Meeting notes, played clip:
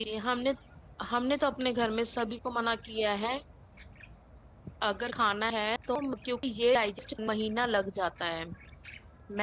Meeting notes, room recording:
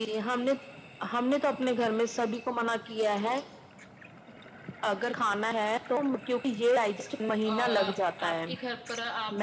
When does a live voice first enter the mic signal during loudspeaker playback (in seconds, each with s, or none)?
7.5 s